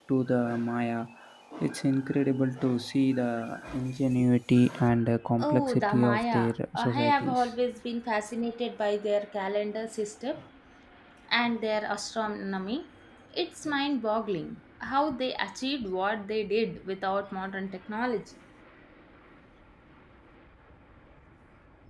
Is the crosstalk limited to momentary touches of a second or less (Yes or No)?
No